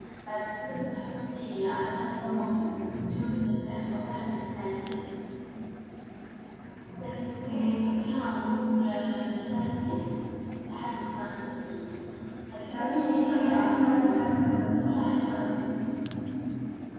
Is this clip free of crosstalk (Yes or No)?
No